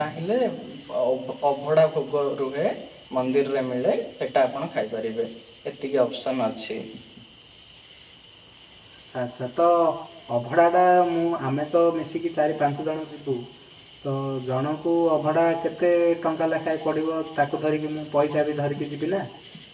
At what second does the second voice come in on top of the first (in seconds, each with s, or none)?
none